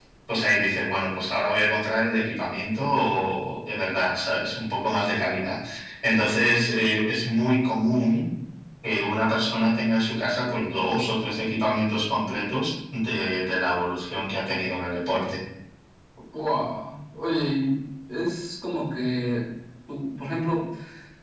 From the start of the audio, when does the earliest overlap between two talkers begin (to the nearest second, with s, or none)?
none